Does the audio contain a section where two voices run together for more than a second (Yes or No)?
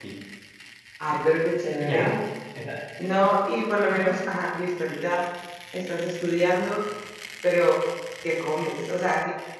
No